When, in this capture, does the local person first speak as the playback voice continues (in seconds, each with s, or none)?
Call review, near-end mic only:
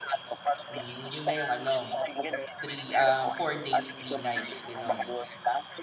0.7 s